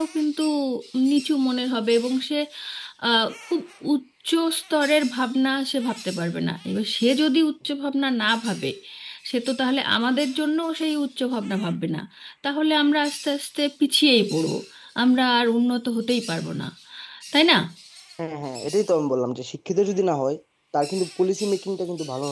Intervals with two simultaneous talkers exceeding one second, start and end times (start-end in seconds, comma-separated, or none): none